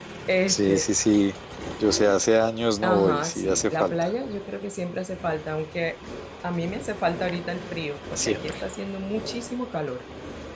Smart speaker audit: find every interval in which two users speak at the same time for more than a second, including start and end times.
2.8-4.1

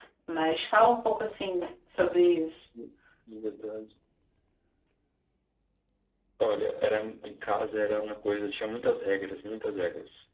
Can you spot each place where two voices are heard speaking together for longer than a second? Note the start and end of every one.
none

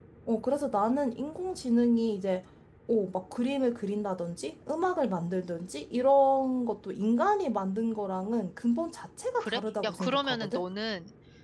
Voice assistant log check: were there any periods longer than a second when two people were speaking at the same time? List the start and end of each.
9.4-10.6

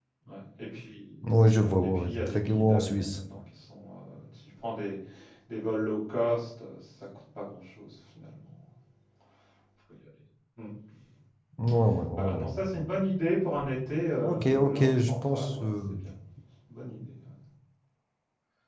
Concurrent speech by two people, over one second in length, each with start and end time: 1.6-3.2, 14.2-16.0

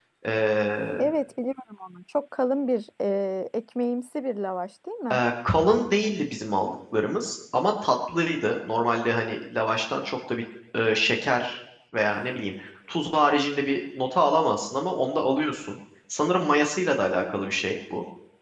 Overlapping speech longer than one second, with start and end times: none

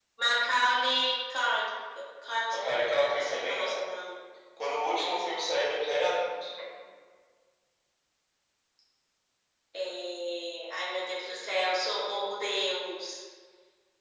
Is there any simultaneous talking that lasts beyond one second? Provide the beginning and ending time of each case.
2.5-3.8

